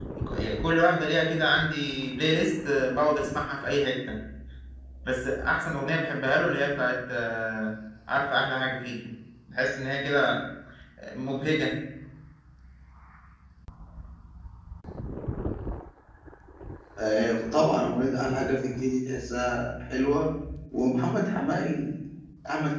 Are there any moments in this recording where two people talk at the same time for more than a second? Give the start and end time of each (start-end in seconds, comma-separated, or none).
none